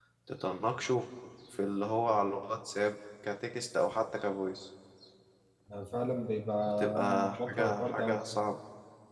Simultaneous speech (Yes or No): Yes